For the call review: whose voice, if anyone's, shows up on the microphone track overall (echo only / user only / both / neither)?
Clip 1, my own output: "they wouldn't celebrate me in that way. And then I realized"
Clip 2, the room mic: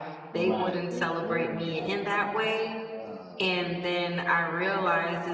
both